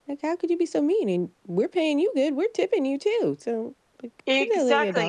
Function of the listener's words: taking over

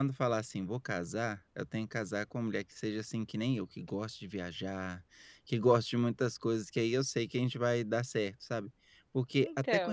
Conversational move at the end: listening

